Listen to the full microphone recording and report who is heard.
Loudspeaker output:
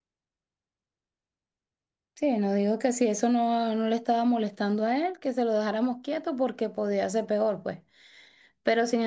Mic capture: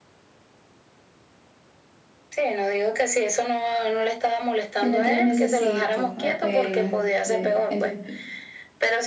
both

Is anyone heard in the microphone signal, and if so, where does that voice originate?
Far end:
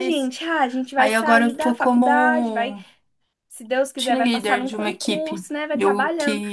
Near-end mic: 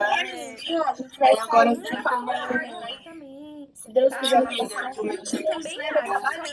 both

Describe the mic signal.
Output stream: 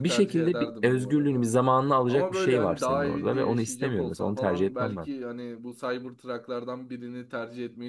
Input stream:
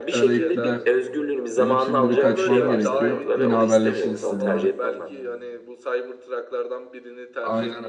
both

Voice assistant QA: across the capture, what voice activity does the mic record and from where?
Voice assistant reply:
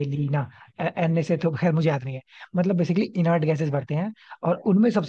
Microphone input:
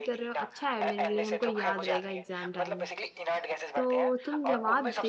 both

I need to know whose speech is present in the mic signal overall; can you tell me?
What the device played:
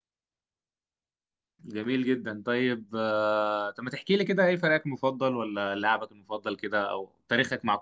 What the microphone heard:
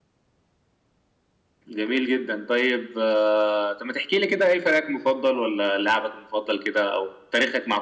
echo only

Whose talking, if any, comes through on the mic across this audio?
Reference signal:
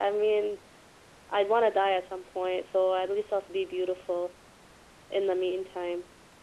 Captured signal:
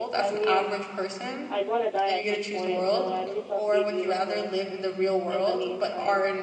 both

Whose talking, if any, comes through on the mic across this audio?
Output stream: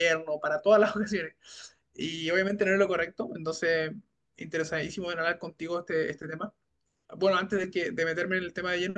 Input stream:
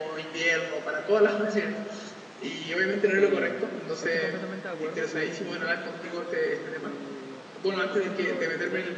both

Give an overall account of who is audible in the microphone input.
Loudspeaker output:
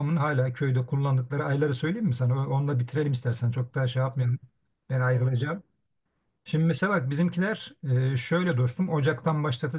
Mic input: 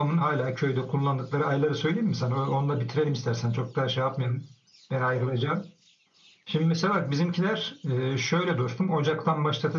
echo only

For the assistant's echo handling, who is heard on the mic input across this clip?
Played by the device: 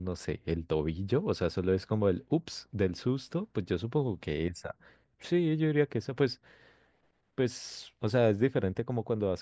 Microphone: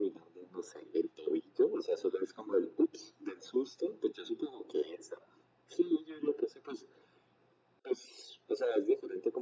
echo only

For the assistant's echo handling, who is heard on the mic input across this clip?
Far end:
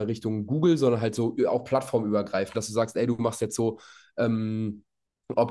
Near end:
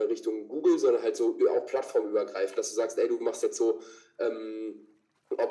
echo only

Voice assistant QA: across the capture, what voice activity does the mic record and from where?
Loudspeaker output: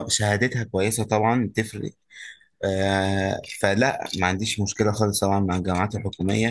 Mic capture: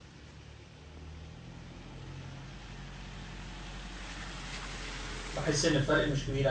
user only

